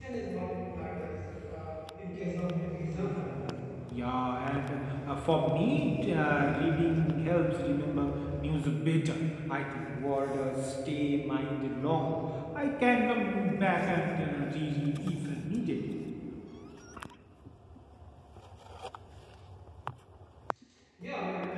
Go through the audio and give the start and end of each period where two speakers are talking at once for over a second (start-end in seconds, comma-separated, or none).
2.1-3.5